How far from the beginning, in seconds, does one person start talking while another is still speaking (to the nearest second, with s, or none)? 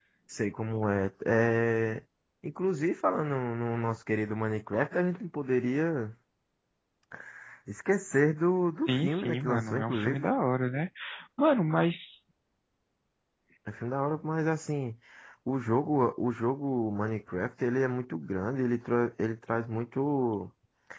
9 s